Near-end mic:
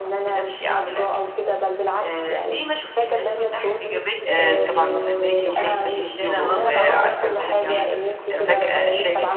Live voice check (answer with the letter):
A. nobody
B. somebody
B